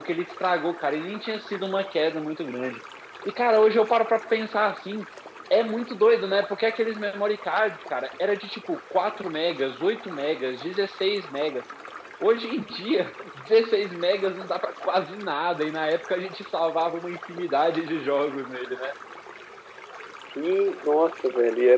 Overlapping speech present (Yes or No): No